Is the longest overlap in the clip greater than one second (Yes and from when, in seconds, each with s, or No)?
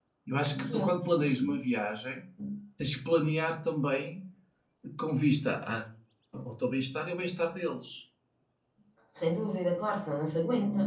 No